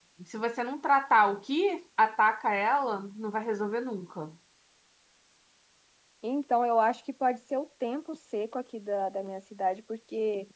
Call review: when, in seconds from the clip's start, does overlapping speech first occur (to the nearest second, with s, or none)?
none